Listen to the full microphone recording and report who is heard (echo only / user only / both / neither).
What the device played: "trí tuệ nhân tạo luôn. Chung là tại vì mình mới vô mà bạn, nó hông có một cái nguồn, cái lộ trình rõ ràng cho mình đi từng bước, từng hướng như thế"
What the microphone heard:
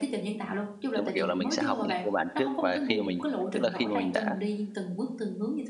both